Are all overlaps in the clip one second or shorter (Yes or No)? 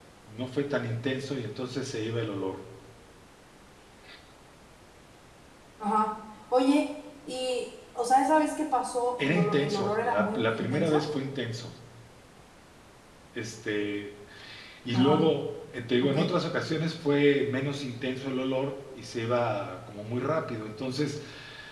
No